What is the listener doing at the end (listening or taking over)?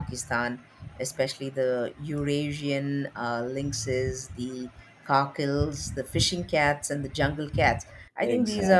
listening